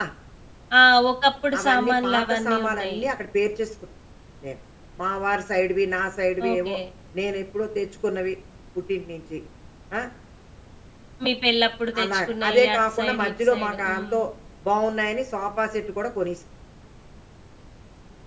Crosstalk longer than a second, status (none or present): present